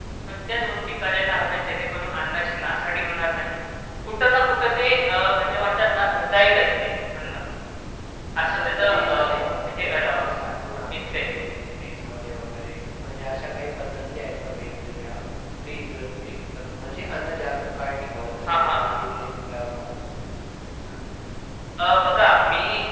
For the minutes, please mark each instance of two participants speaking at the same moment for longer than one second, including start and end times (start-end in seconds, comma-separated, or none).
8.4-10.2